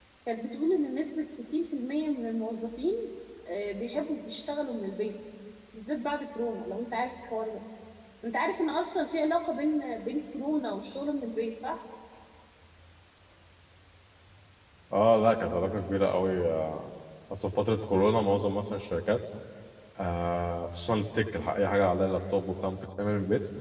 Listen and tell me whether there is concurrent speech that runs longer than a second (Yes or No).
No